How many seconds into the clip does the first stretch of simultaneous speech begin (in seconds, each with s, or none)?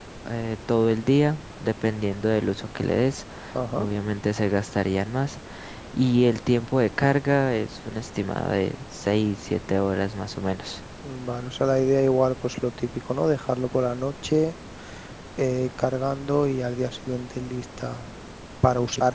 none